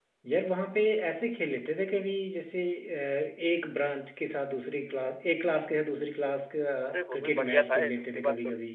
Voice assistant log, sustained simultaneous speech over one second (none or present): present